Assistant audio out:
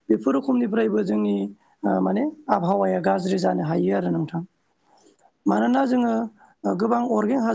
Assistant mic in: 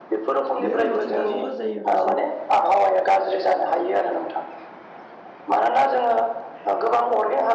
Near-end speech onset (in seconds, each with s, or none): 0.6 s